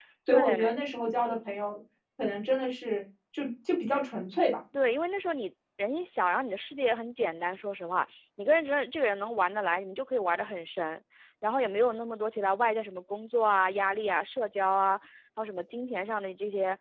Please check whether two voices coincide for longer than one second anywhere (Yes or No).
No